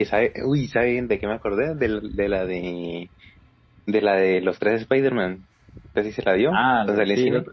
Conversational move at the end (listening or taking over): taking over